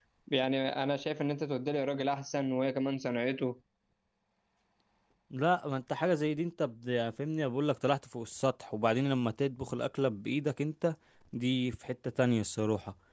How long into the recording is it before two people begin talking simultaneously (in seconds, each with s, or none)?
none